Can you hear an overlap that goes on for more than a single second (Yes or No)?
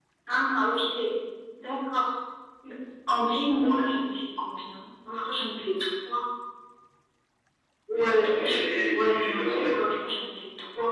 Yes